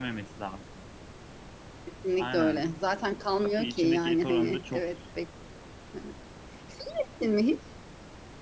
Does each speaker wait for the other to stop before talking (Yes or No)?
No